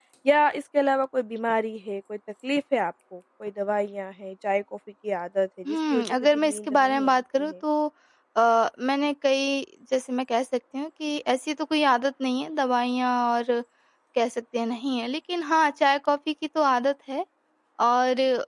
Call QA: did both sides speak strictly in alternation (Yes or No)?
No